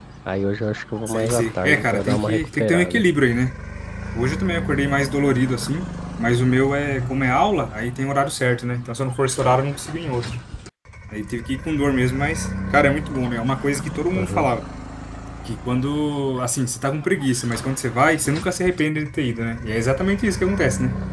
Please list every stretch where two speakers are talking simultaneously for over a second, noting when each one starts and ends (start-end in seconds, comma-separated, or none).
1.1-3.0